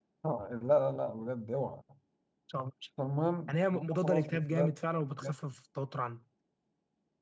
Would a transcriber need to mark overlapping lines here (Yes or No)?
Yes